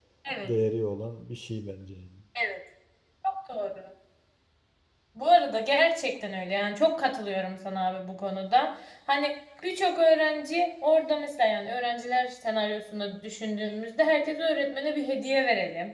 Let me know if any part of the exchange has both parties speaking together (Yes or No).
No